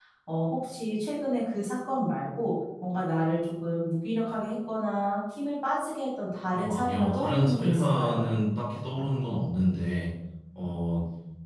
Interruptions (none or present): present